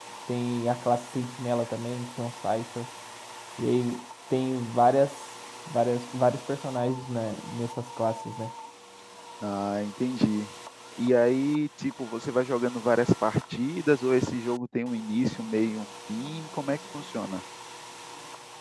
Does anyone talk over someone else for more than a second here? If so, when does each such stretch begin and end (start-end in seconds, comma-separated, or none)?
none